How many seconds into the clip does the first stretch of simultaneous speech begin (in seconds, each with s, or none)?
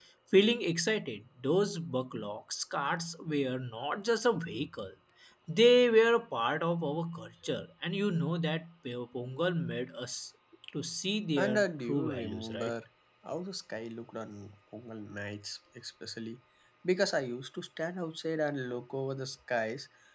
11.4 s